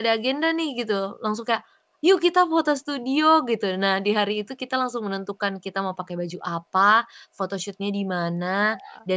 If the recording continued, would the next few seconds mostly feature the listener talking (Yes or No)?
No